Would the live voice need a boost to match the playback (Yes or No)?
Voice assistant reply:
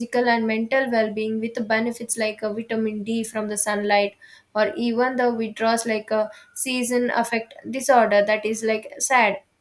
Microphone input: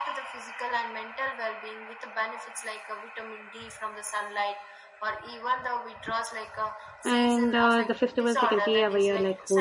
No